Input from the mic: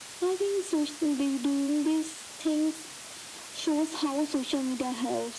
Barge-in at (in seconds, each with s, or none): none